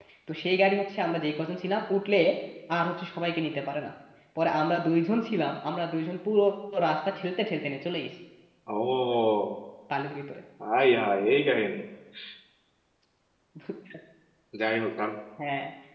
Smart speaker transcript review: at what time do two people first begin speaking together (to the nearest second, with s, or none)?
none